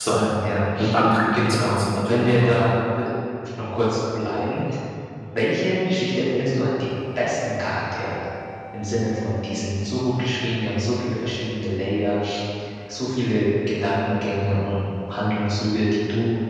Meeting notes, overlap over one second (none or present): present